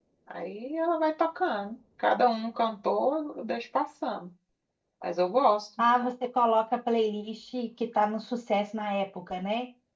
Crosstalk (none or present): none